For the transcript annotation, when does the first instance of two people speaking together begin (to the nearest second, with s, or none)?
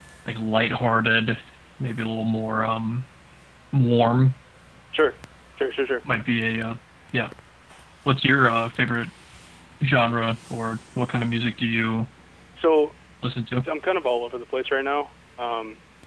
none